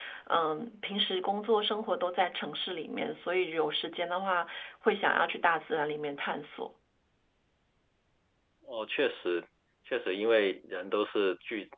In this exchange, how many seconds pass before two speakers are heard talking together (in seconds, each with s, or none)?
none